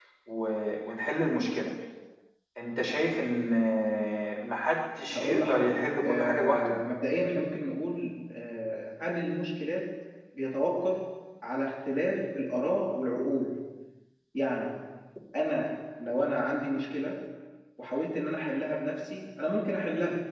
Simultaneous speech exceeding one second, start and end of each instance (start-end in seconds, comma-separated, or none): 5.1-6.6